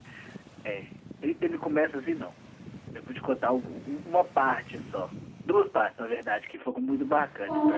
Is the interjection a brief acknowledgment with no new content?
No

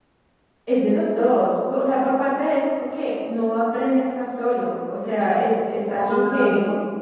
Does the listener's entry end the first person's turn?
No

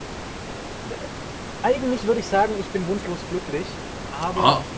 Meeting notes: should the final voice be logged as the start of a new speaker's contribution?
No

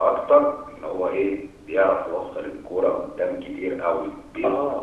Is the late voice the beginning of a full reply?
Yes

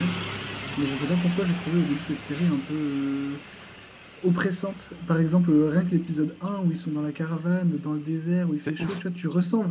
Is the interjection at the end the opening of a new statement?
No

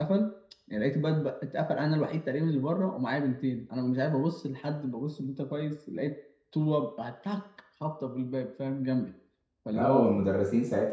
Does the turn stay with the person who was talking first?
No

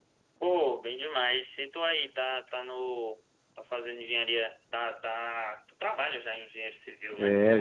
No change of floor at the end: No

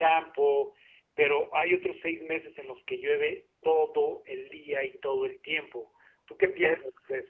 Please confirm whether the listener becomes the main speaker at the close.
Yes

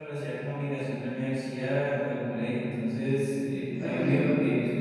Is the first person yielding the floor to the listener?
No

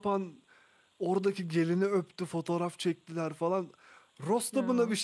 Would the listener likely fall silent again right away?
Yes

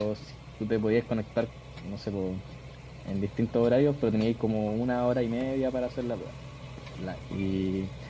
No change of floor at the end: Yes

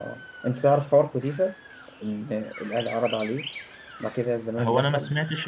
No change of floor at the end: No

